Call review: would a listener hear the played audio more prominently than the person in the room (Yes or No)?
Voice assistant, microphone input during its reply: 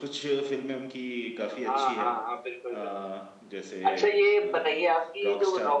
No